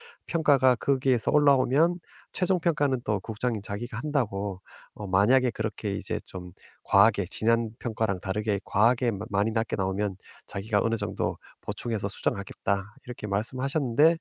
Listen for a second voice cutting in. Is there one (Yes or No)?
No